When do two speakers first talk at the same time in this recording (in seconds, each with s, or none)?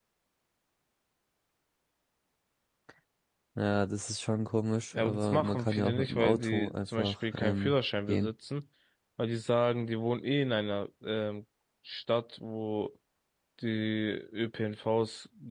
4.9 s